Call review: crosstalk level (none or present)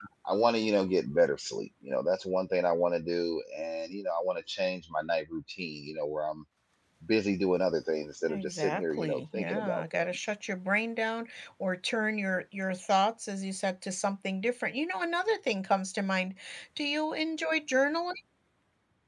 present